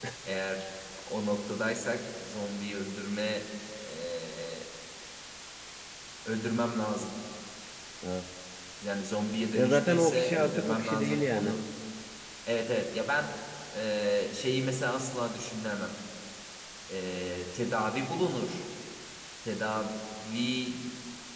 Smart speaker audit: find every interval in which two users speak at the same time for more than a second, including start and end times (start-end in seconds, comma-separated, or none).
9.5-11.5